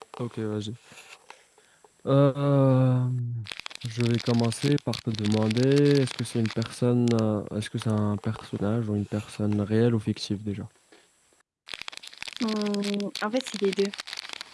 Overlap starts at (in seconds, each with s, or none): none